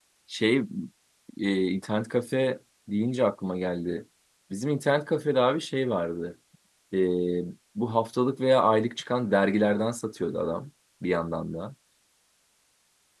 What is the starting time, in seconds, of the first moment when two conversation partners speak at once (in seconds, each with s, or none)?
none